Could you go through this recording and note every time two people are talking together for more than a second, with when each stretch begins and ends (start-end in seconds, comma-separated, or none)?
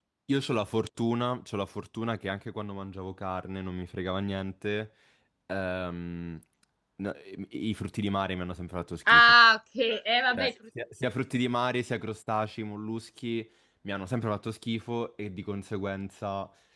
none